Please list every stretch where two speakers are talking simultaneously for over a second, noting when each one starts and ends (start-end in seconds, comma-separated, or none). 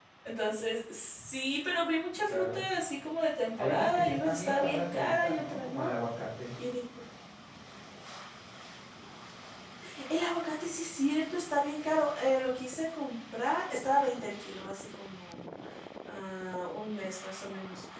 3.5-5.9